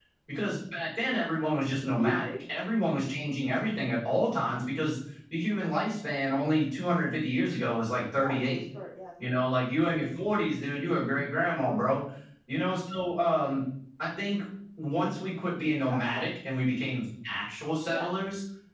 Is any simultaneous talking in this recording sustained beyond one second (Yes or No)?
No